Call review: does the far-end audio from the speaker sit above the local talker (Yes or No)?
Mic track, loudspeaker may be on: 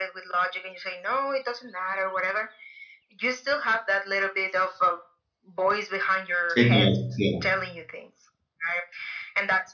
No